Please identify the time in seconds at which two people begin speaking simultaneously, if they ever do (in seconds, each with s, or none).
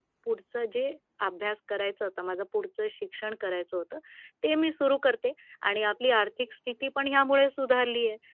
none